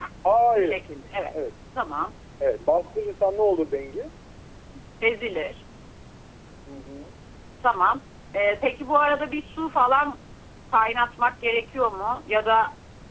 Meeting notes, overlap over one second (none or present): none